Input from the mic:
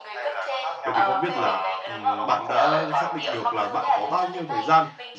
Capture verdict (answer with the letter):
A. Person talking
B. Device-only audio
A